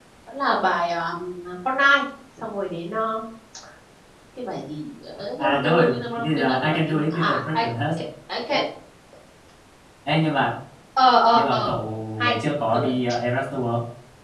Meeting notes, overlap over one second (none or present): present